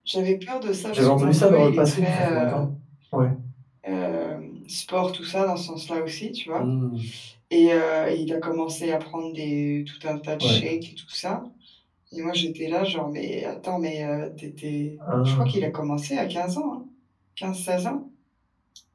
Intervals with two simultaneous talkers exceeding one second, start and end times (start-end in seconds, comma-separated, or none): 0.9-2.6